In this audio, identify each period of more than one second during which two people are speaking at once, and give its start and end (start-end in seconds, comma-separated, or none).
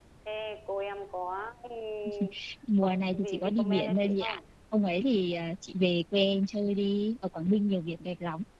2.8-4.4